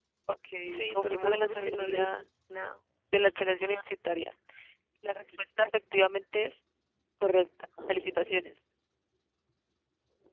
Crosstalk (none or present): present